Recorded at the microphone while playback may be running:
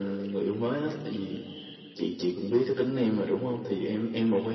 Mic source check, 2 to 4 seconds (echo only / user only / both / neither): echo only